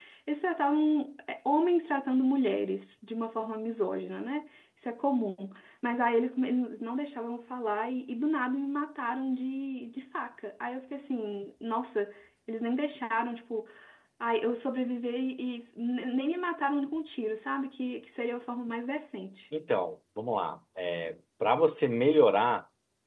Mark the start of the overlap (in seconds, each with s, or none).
none